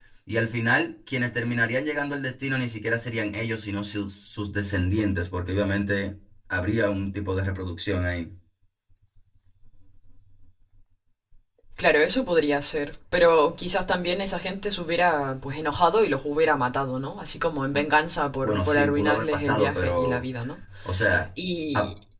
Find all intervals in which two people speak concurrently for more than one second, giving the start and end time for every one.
18.4-20.2

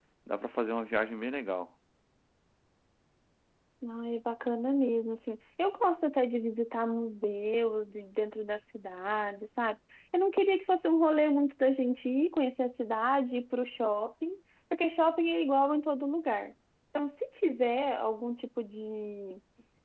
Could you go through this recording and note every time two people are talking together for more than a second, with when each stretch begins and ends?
none

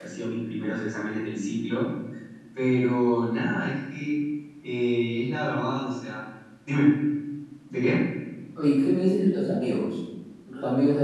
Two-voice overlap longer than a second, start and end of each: none

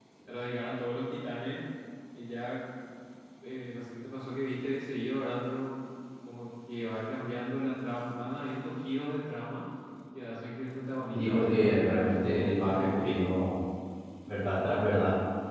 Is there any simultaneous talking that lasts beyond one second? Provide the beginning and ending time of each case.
11.1-13.2

